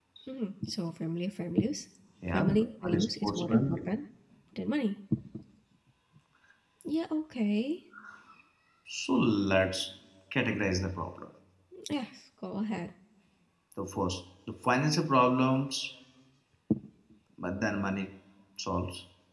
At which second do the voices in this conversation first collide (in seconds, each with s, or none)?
2.2 s